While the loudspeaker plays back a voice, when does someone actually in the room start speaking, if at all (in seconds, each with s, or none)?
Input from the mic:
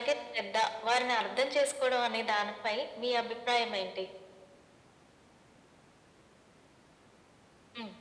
none